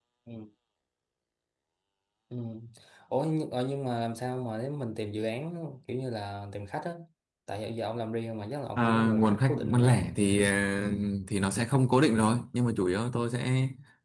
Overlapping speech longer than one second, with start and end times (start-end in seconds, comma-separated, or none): 8.8-10.0